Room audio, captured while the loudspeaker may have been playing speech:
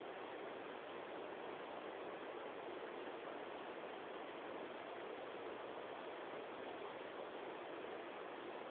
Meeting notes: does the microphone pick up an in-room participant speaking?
No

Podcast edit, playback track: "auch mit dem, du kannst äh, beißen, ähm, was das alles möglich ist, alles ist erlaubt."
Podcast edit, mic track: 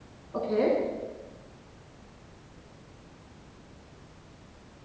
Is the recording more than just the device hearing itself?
Yes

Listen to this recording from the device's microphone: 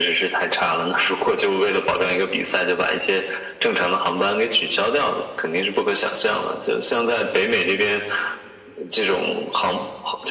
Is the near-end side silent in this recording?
Yes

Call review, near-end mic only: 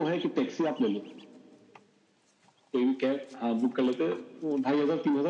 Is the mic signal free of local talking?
Yes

